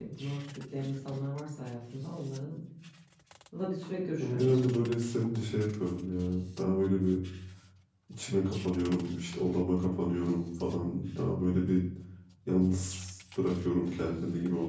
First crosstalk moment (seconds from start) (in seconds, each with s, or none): 4.2 s